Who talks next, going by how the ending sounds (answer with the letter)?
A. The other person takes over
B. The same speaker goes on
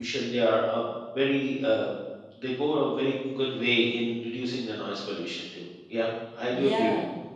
A